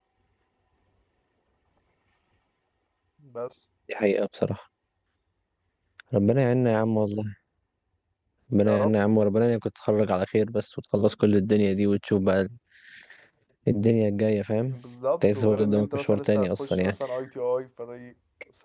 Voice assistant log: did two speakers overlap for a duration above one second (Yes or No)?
Yes